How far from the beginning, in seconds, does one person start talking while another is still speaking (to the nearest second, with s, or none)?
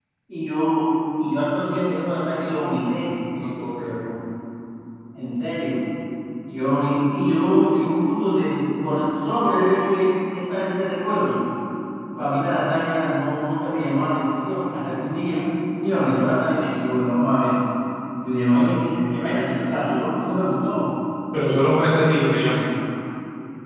none